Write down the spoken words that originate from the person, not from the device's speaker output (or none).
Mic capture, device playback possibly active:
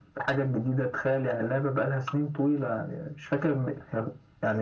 none